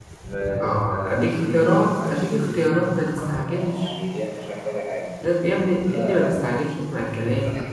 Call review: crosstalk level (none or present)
present